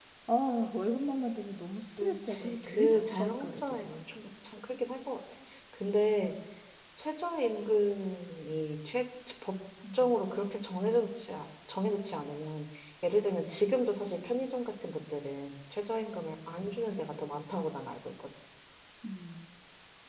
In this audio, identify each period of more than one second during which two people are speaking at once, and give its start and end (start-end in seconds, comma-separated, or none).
2.0-4.1